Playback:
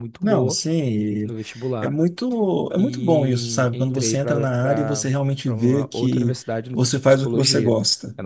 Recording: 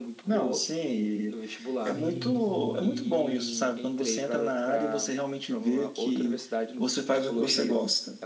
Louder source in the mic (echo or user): echo